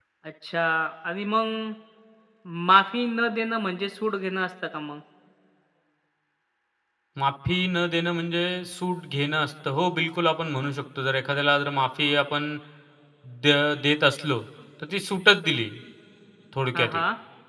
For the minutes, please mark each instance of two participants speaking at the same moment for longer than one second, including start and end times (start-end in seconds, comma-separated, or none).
none